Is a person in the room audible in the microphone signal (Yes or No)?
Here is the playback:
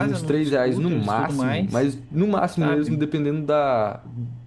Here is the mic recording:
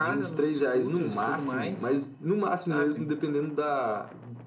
No